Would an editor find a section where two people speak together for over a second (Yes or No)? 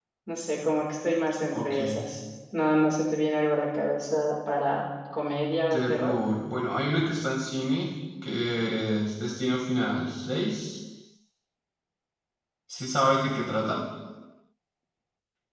No